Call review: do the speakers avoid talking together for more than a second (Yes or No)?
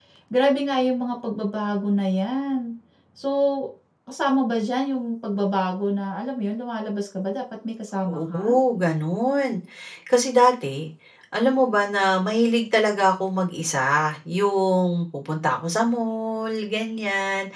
Yes